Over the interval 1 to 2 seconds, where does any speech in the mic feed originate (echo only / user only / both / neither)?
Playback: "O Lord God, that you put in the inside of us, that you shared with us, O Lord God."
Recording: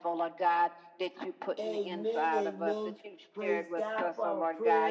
both